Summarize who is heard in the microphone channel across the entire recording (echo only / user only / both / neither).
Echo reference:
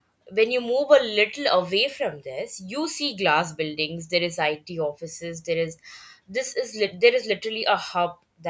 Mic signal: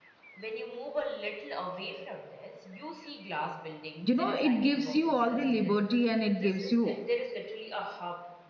both